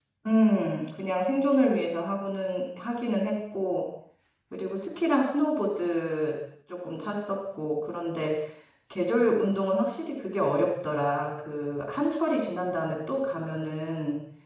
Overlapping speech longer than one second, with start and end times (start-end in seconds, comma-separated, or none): none